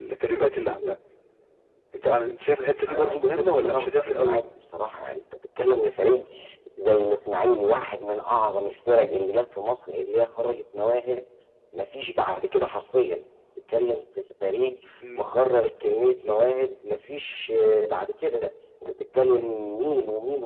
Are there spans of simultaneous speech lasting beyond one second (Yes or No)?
Yes